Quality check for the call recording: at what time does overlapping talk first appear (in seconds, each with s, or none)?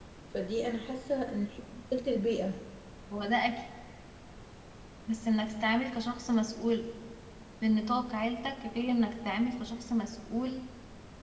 none